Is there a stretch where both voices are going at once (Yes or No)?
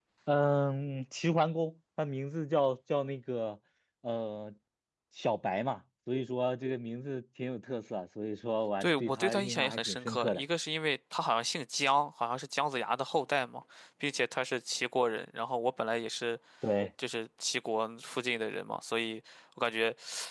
Yes